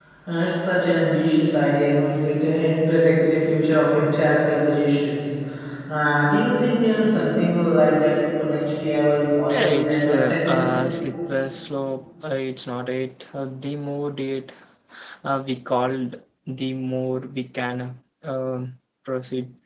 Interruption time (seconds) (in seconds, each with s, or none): 9.5 s